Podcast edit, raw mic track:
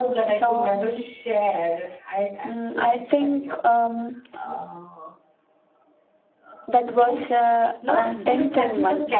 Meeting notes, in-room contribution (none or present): present